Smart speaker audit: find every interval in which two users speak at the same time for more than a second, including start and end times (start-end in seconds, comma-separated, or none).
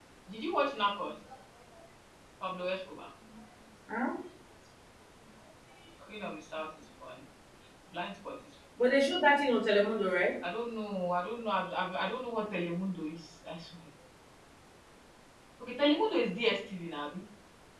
none